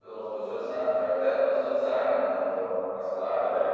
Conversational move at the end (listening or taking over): listening